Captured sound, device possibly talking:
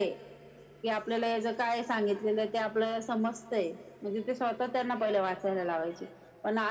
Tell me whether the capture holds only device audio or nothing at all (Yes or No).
Yes